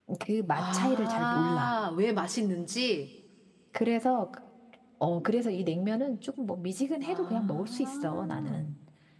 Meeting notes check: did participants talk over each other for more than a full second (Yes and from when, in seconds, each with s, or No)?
Yes, from 0.5 s